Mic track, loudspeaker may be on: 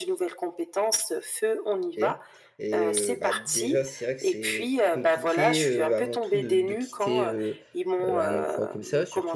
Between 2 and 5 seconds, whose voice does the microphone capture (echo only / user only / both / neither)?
both